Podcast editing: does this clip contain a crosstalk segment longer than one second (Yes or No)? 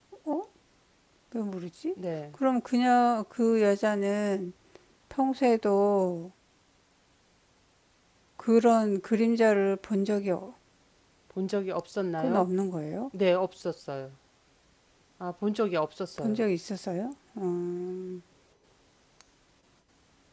No